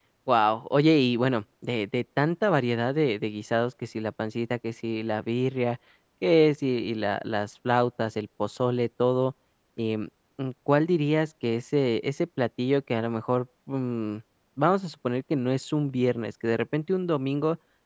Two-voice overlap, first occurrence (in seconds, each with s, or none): none